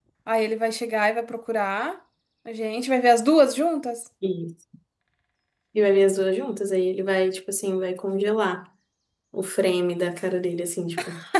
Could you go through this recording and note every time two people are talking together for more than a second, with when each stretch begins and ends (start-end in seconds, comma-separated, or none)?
none